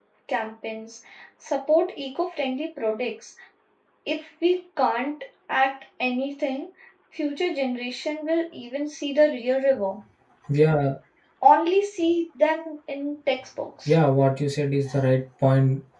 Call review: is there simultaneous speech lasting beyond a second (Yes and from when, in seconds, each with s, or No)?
No